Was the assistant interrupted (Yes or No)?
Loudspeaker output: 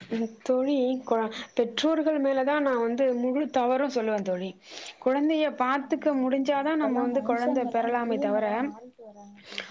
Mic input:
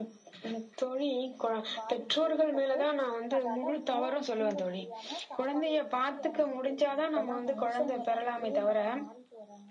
Yes